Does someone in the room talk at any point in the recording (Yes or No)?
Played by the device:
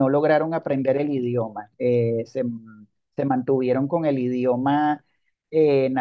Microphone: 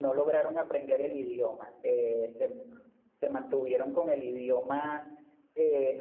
No